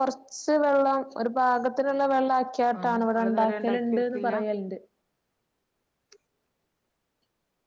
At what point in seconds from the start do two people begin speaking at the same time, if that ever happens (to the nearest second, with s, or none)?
3 s